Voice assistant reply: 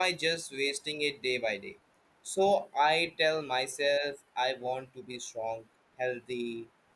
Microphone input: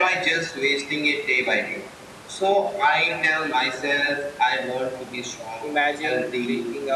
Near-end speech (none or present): present